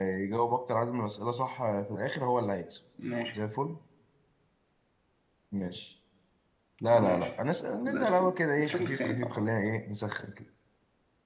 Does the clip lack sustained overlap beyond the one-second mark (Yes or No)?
No